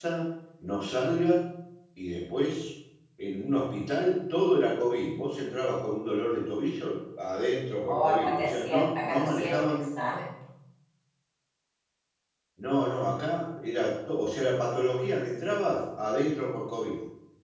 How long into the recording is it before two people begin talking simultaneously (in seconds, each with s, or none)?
7.8 s